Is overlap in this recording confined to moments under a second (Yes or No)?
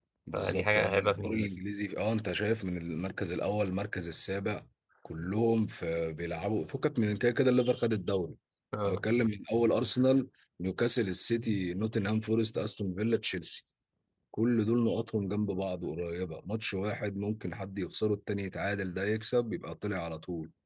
No